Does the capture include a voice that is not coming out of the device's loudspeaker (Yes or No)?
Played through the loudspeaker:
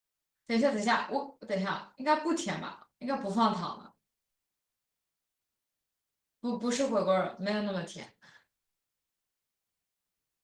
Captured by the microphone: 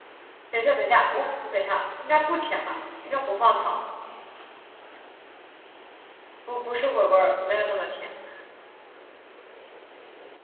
No